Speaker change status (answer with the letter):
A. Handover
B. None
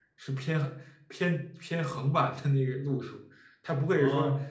B